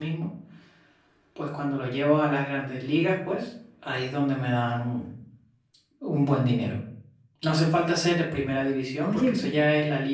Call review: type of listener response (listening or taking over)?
listening